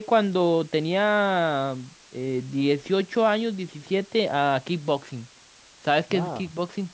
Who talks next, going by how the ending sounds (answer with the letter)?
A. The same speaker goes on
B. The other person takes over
B